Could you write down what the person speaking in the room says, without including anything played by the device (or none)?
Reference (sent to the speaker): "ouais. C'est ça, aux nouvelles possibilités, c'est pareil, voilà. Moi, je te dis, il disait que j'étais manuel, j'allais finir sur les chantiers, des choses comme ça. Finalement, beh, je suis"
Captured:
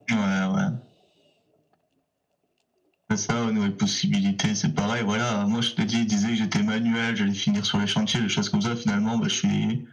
none